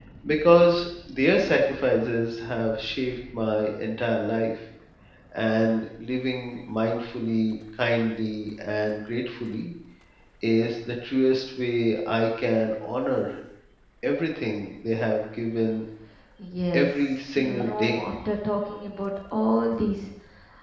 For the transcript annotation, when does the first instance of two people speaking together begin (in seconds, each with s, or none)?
16.7 s